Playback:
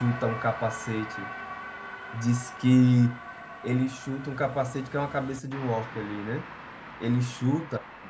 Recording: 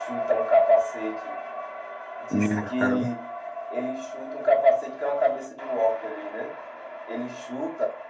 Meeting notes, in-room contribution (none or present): present